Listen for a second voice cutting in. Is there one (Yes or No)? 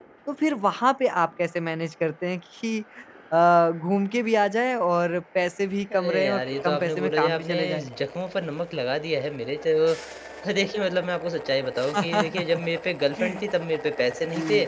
Yes